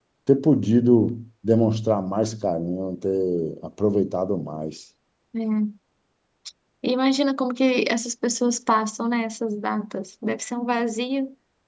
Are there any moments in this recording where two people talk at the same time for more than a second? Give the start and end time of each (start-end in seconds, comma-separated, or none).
none